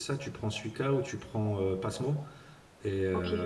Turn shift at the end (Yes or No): No